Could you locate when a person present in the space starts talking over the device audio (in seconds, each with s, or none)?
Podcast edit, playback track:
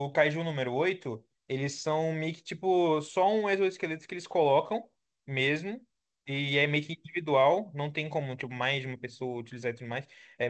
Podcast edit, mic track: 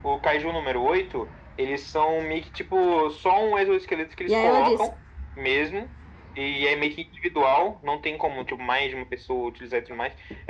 4.3 s